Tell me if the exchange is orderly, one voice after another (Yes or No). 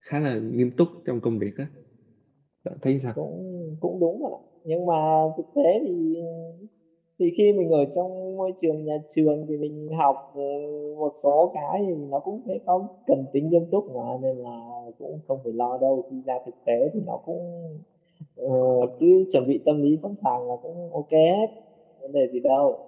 Yes